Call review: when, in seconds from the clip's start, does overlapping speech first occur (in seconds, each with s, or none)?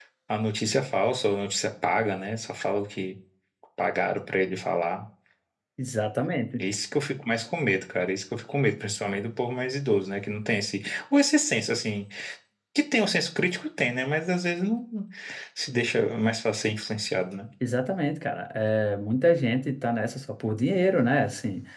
none